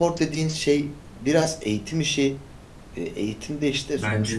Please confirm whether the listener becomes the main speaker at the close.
No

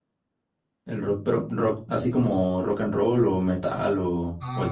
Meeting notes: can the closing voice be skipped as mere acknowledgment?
No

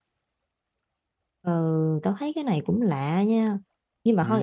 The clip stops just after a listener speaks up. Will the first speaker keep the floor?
Yes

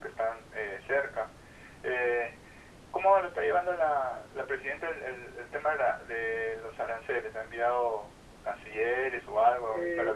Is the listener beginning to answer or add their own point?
Yes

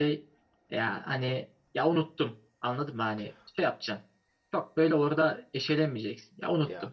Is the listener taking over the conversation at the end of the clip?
No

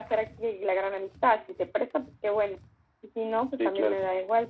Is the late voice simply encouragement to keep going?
Yes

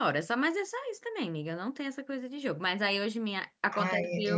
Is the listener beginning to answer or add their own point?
No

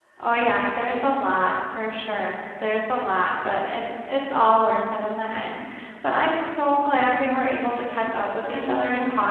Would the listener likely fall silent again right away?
Yes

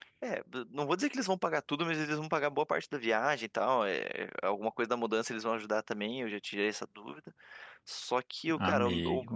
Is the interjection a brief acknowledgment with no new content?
Yes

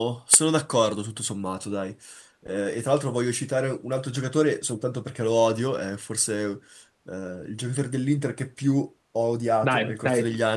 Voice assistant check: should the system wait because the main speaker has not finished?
No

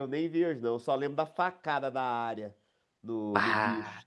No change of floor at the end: Yes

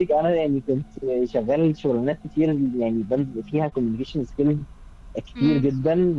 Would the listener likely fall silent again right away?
Yes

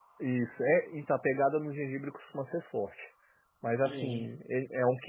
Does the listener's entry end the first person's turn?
No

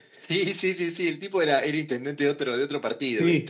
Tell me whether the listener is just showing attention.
No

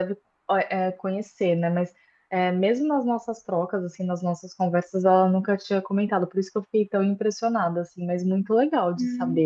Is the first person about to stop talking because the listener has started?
Yes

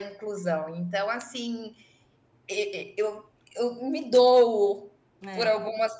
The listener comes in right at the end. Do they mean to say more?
No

